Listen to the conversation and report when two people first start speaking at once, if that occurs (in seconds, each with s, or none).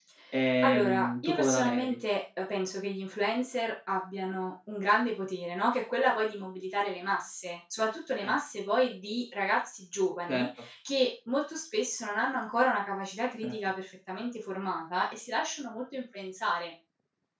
0.6 s